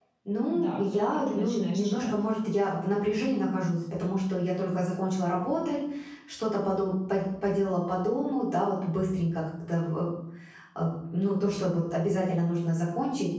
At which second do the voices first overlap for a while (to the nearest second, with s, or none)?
1 s